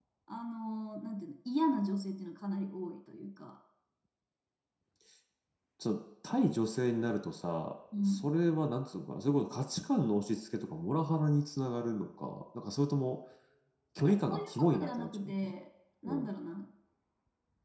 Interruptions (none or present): present